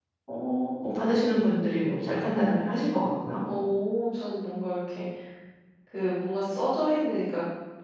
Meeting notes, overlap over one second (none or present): none